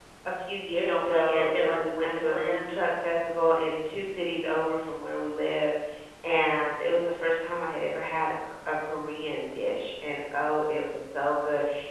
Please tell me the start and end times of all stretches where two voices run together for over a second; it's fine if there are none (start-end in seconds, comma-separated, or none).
0.7-2.7